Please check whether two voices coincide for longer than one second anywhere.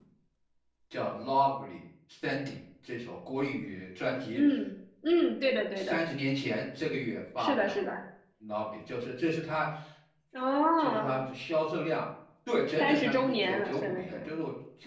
Yes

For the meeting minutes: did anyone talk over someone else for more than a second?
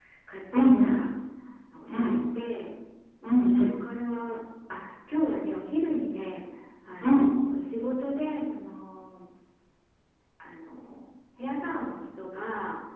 No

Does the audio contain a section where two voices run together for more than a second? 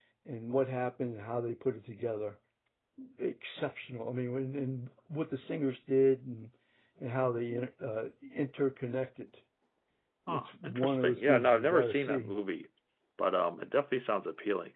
Yes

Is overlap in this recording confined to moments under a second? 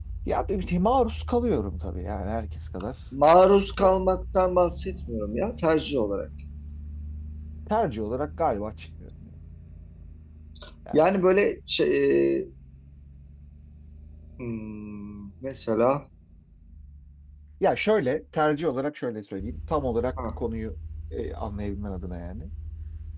Yes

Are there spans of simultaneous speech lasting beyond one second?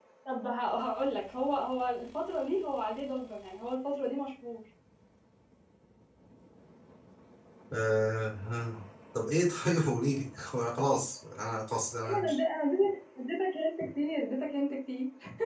No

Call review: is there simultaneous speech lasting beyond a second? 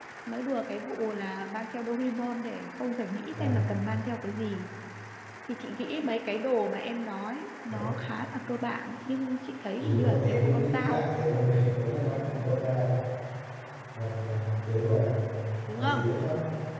Yes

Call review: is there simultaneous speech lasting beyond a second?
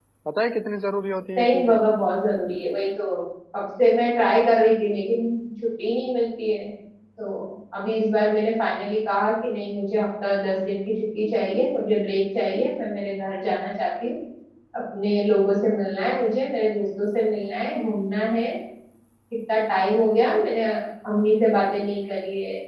No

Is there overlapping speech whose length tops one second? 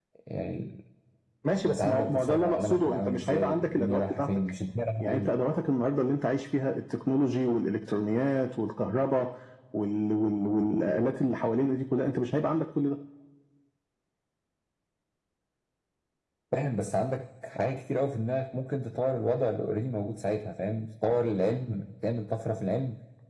Yes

